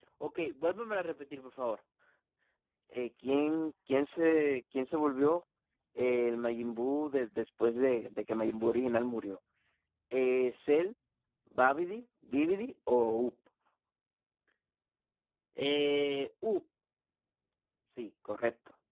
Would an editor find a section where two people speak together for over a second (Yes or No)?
No